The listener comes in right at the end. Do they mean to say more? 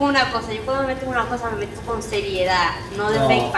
Yes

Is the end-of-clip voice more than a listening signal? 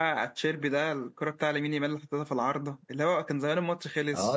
Yes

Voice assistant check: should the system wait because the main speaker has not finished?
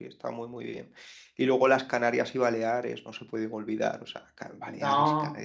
Yes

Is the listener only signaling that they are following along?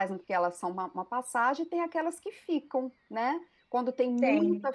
Yes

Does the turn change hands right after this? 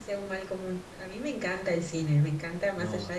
No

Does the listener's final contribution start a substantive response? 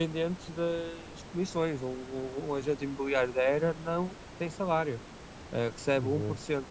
No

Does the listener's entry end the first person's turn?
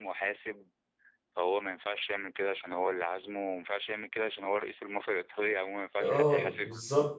Yes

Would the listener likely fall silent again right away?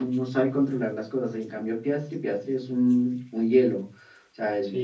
No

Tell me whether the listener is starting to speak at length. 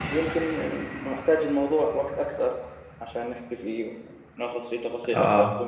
No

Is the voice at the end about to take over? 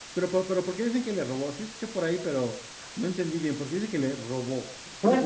Yes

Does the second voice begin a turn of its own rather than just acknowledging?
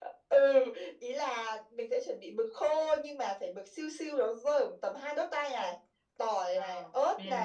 No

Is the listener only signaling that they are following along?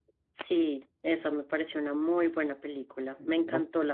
Yes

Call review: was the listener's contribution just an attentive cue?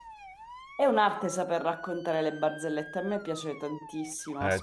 No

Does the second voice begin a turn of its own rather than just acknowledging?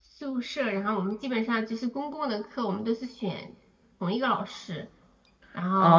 Yes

